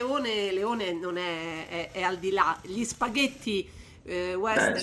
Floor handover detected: No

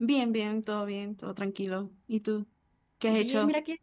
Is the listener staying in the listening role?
No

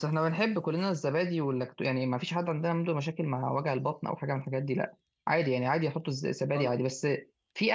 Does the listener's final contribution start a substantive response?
No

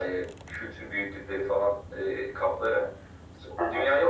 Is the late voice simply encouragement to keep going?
Yes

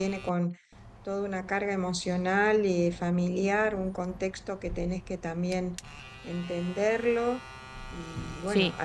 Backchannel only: Yes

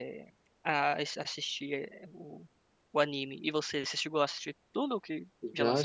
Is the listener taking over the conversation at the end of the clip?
Yes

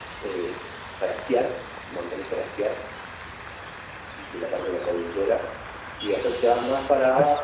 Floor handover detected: No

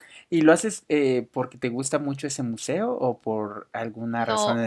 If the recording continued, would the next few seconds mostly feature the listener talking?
Yes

